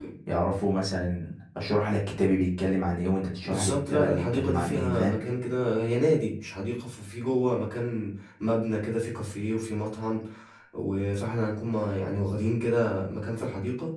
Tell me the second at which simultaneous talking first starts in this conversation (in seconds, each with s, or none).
3.5 s